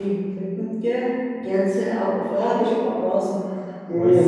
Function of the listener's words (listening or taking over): taking over